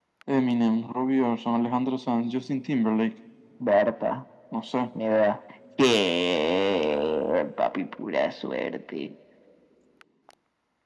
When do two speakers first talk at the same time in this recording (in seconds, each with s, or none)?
none